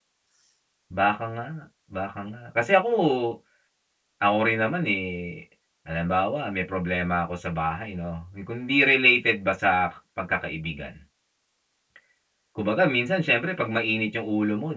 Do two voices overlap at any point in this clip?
No

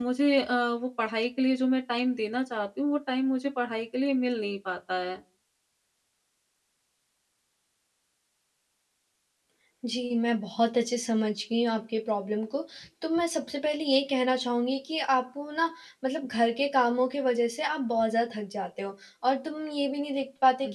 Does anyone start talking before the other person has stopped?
No

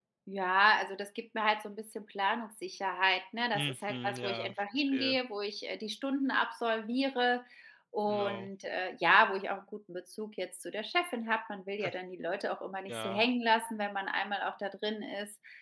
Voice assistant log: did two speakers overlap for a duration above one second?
Yes, from 3.5 s

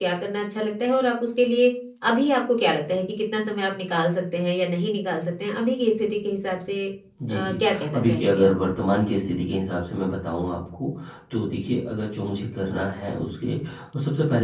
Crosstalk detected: Yes, from 7.3 s

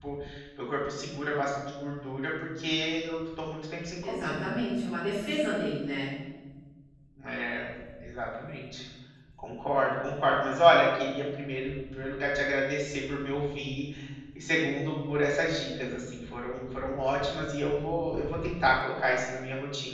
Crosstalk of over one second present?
No

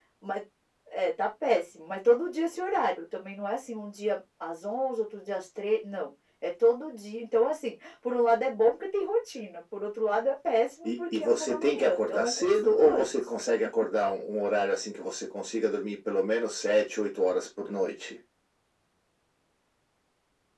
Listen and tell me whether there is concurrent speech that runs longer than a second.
Yes, from 11.1 s

